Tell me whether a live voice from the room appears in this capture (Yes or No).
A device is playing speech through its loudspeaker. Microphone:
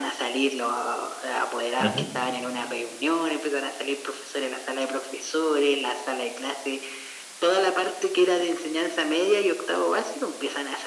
Yes